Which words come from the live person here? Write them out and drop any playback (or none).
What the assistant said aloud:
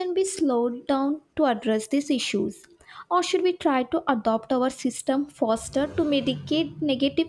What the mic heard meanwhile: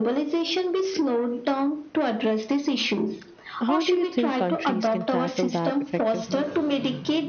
How do you think countries can tackle that effectively?